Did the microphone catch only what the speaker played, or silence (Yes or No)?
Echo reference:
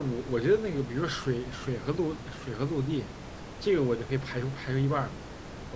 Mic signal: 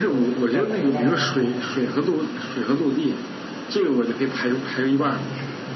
No